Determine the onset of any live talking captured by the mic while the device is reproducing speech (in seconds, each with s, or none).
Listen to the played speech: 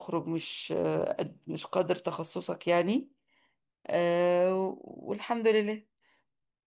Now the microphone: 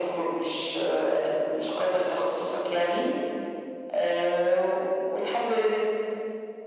none